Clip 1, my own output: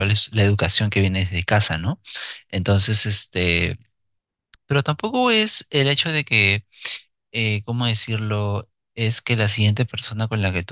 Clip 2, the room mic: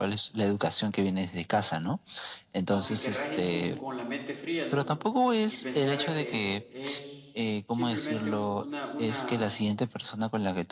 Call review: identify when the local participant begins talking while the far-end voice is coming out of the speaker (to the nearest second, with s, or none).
3 s